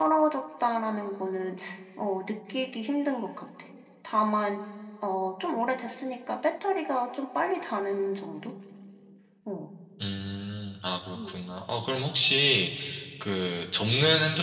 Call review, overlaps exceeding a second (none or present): none